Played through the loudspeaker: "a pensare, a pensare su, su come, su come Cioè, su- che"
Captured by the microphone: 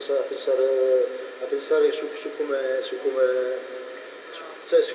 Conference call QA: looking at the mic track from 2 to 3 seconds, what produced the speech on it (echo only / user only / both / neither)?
echo only